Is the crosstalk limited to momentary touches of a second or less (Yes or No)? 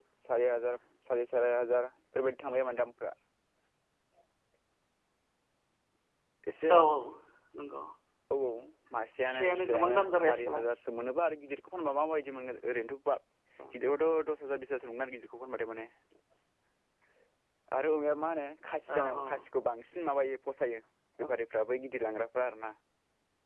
No